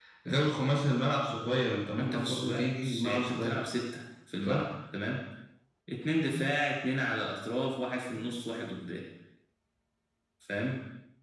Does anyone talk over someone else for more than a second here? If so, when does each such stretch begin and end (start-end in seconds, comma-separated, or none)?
2.0-3.6